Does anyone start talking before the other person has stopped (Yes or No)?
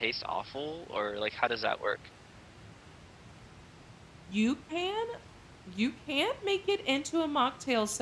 No